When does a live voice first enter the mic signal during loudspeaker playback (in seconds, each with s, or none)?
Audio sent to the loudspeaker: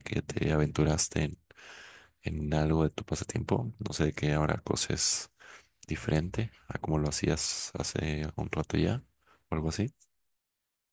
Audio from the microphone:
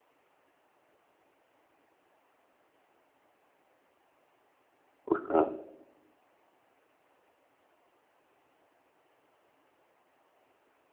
5.1 s